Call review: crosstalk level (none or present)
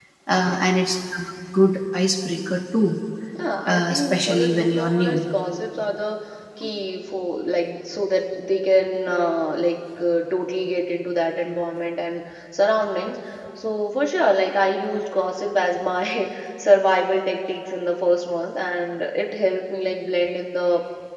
present